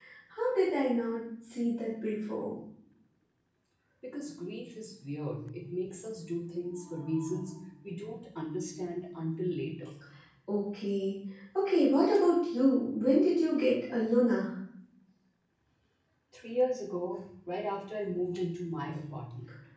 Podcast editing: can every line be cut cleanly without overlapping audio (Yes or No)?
Yes